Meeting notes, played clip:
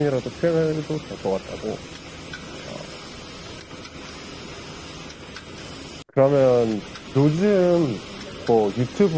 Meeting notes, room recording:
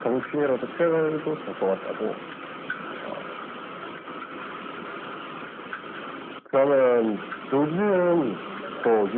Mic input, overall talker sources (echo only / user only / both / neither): echo only